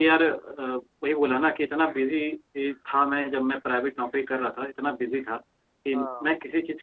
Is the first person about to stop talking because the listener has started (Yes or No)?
No